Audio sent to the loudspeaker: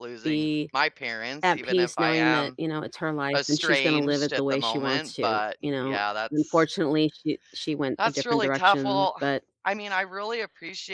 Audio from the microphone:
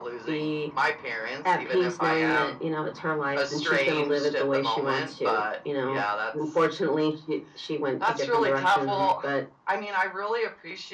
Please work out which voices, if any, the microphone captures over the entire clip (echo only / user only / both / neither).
echo only